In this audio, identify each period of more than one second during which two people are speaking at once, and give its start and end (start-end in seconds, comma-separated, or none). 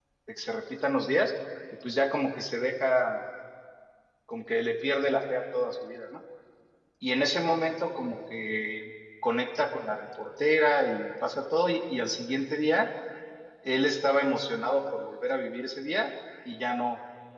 none